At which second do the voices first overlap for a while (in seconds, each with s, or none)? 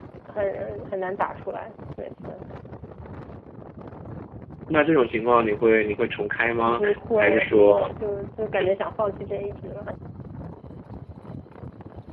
6.6 s